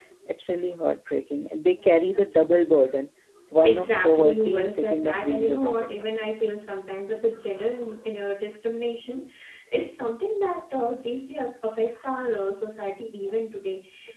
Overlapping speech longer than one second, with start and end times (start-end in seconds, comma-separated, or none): 3.6-5.9